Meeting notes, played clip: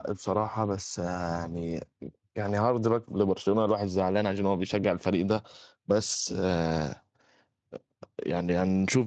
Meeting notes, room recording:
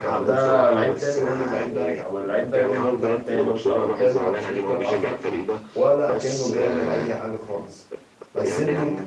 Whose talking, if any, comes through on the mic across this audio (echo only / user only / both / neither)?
both